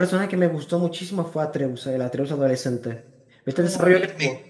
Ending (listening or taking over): taking over